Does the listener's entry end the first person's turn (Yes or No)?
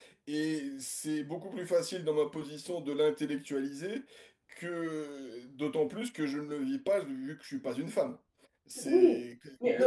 Yes